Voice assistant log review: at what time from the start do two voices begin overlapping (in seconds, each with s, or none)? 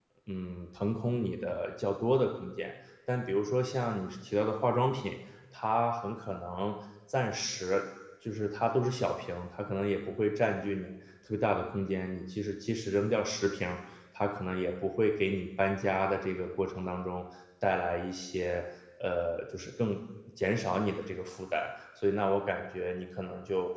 none